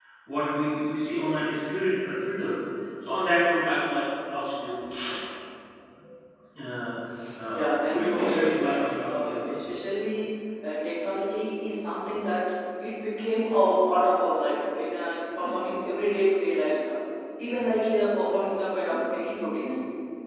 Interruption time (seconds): 7.5 s

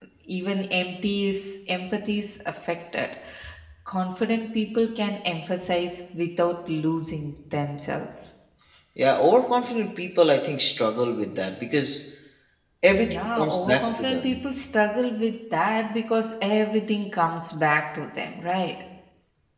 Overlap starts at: 12.9 s

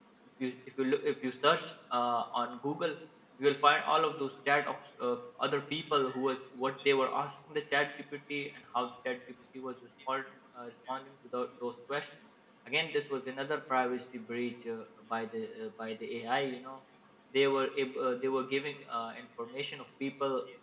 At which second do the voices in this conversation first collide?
none

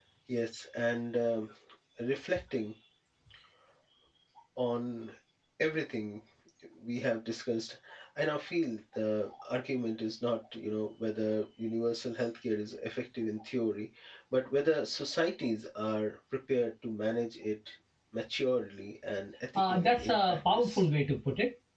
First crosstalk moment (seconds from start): 19.6 s

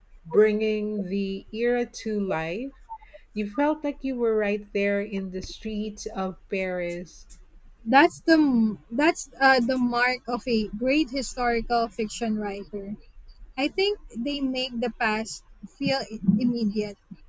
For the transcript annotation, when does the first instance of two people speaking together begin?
none

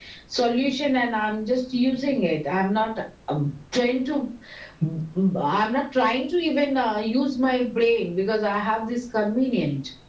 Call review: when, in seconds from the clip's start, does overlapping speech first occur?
none

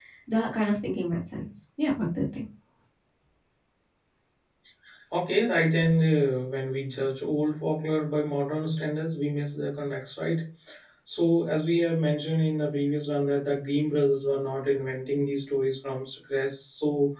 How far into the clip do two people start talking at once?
none

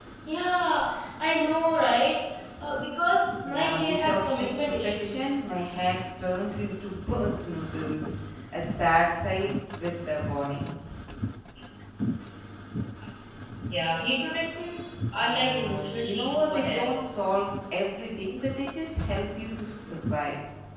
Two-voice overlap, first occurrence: 3.5 s

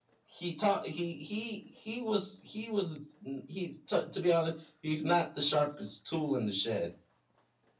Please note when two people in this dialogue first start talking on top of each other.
none

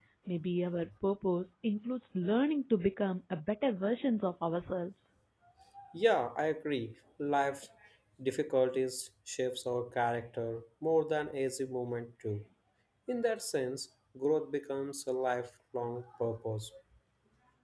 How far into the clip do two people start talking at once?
none

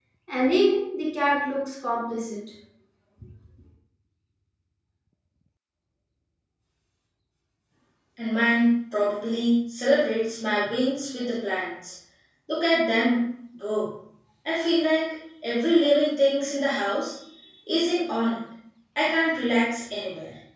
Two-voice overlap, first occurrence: none

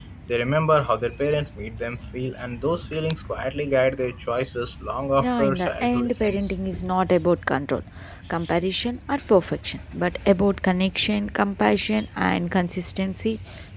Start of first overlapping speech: 5.2 s

